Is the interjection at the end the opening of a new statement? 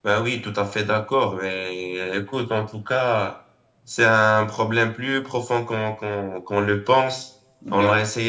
No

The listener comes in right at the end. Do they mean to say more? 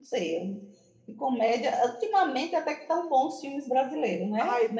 Yes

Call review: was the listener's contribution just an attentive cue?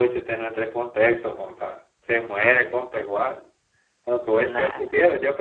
Yes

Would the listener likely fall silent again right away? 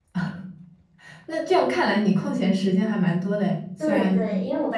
No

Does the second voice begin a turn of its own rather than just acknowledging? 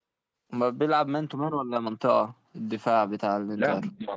Yes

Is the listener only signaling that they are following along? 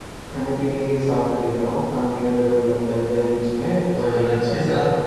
No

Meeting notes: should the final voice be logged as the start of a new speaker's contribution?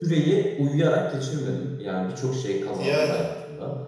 No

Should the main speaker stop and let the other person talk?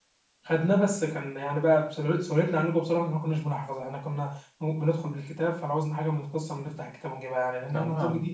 Yes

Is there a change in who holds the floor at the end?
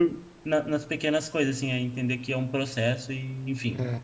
Yes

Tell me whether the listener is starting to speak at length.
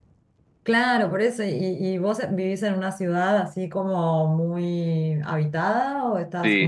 Yes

